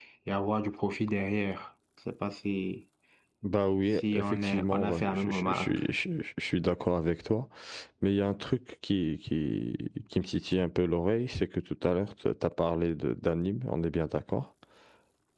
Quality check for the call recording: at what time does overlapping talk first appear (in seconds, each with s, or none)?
3.9 s